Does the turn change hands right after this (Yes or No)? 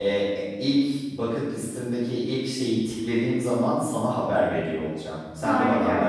Yes